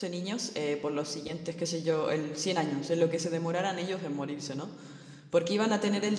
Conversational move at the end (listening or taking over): listening